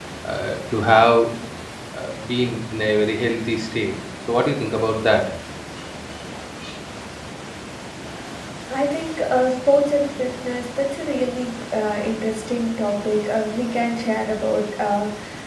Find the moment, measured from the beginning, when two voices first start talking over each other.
none

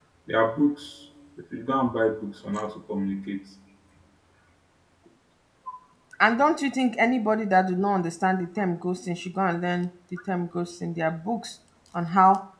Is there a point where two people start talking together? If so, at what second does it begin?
none

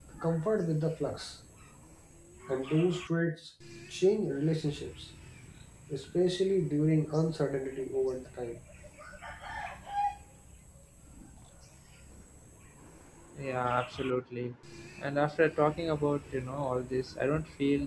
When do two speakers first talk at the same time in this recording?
none

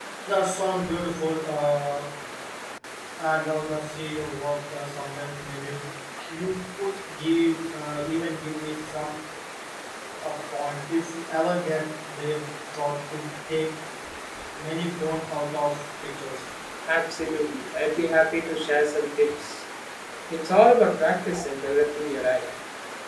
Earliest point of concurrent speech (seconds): none

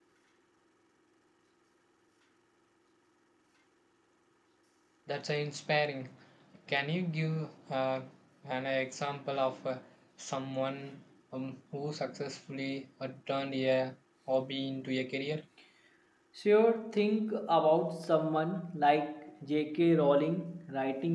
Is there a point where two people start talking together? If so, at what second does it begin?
none

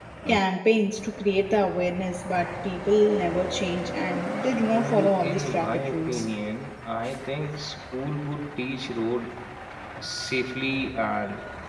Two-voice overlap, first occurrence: 4.7 s

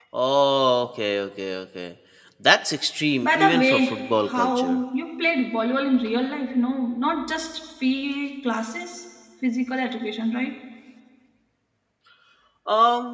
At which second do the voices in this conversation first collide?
3.2 s

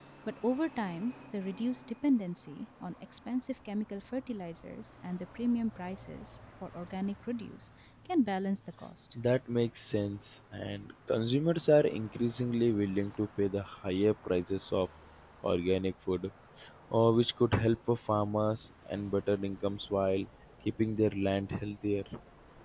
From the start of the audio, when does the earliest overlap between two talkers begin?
none

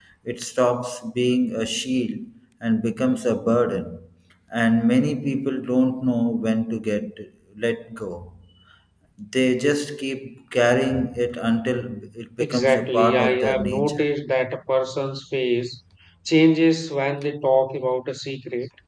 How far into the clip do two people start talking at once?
12.4 s

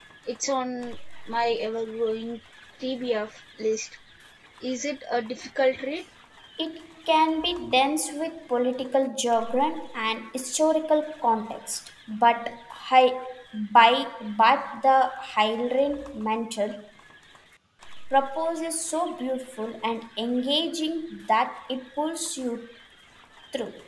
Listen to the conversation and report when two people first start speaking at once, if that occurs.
none

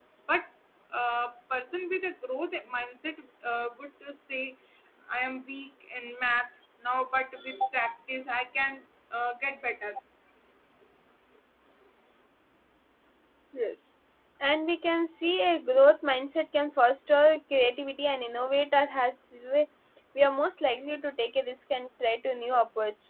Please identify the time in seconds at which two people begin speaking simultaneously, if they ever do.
none

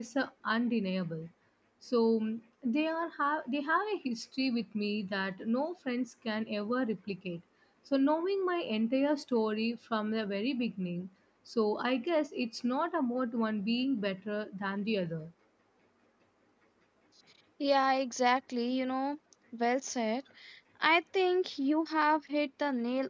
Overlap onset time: none

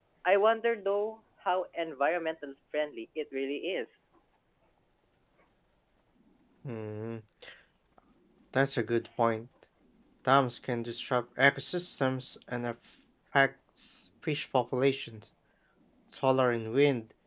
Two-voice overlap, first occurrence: none

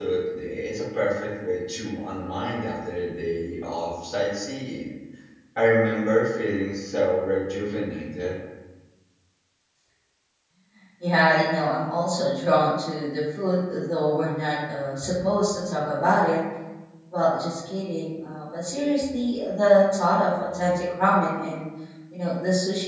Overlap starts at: none

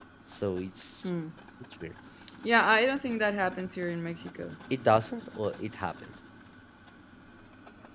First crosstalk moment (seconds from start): none

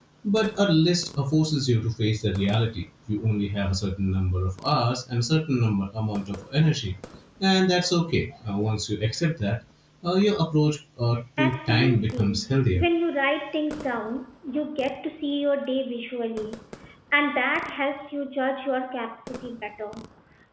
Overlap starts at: 11.4 s

